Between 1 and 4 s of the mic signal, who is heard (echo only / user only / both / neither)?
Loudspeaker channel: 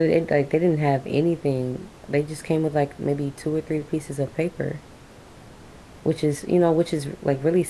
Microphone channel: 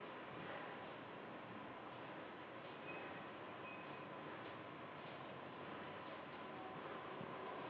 neither